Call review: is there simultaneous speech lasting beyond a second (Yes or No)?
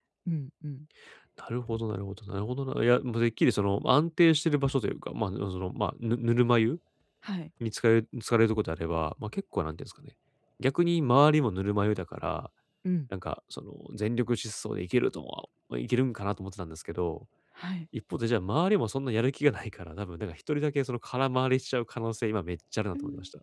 No